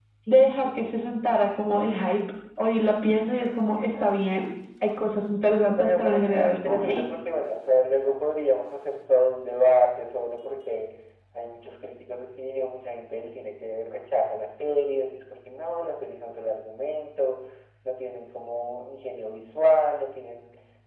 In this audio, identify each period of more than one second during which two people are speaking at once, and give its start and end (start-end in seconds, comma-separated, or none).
5.8-7.0